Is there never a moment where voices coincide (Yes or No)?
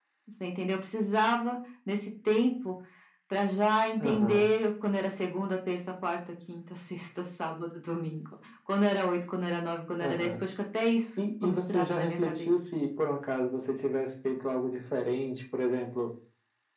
No